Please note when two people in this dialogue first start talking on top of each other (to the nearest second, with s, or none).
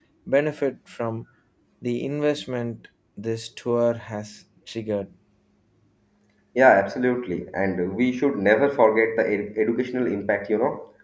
none